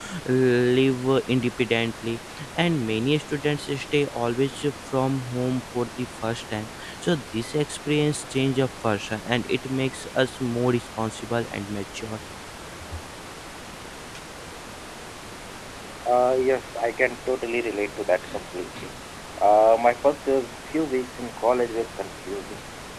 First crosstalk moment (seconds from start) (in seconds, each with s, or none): none